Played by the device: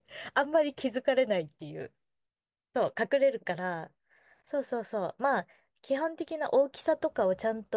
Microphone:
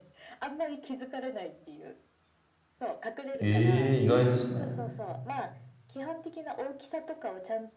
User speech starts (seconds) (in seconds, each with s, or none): 3.4 s